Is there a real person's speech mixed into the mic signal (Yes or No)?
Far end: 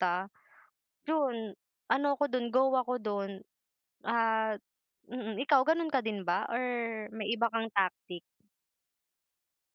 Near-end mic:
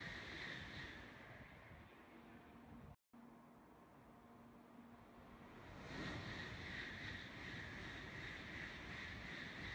No